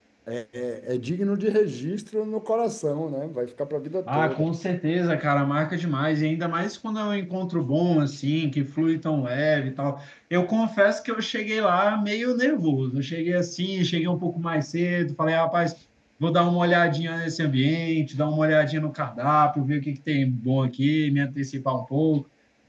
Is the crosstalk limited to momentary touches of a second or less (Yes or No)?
Yes